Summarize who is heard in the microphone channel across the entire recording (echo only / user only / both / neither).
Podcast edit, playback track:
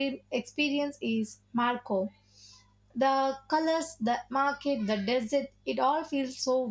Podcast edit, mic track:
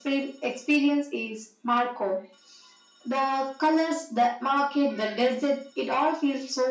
echo only